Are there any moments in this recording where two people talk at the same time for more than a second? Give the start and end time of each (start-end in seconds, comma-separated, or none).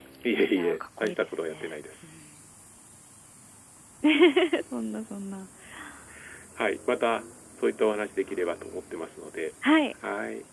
0.5-2.1